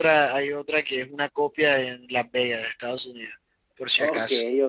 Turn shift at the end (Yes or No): Yes